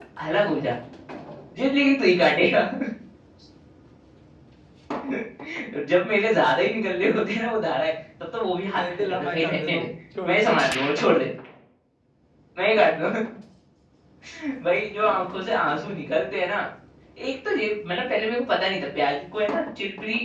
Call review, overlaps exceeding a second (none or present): present